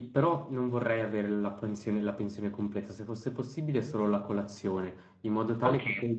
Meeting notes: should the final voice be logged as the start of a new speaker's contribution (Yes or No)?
Yes